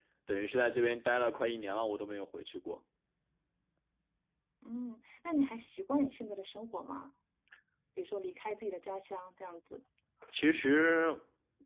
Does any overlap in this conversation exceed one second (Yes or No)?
No